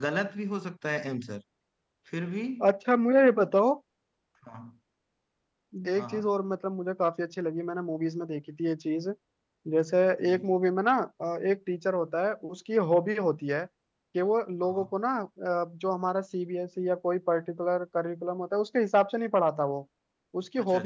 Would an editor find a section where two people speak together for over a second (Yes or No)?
No